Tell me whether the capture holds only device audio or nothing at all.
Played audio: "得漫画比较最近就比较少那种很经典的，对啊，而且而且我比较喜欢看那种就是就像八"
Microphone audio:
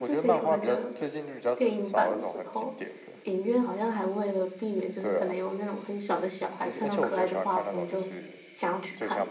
No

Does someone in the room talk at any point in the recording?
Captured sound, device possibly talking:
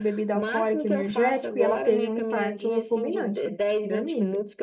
Yes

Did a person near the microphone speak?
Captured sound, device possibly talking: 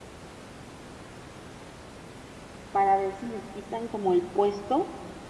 Yes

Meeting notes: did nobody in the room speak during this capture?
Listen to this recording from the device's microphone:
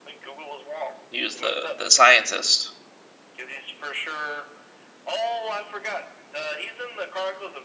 No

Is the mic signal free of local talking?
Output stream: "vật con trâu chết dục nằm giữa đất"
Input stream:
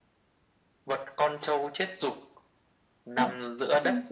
No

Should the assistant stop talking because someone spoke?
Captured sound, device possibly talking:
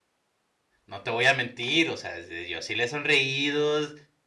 Yes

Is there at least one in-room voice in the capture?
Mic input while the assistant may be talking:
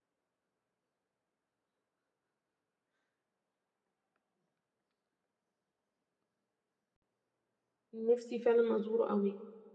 Yes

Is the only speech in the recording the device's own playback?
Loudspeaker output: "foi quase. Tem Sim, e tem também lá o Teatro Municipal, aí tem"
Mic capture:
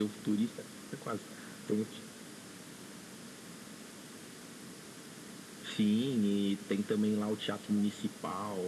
Yes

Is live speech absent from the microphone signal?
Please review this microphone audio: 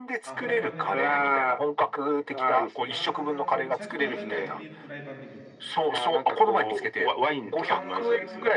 No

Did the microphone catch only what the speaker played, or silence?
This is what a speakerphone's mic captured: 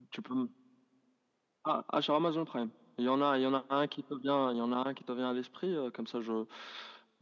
Yes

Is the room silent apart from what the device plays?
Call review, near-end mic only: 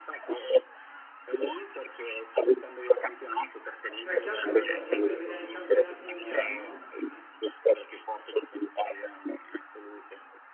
No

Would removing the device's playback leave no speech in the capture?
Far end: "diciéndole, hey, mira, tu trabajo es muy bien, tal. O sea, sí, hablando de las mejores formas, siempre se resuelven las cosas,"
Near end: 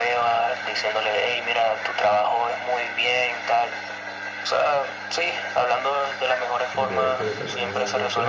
No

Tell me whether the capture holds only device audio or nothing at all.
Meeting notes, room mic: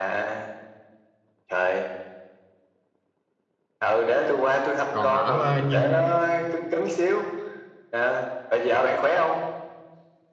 No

